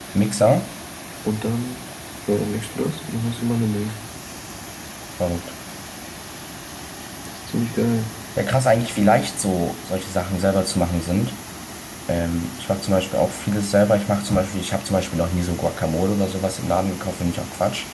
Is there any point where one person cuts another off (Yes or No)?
No